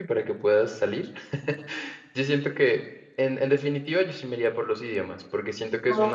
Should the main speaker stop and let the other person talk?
No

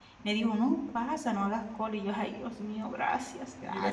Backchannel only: No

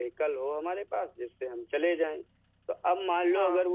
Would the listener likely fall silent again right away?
Yes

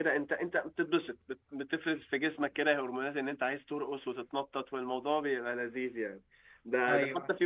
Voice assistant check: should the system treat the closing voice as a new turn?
No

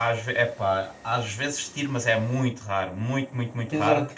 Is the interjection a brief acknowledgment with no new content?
No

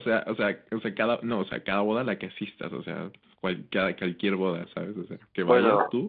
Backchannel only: No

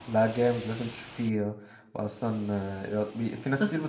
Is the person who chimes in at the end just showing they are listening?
Yes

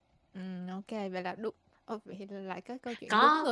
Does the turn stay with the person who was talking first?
No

